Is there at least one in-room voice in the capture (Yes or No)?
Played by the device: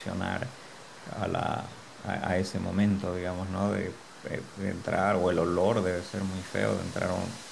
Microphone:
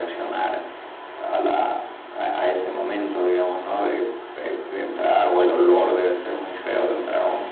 No